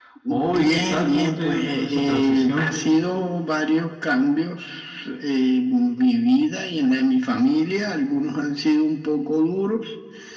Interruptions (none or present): present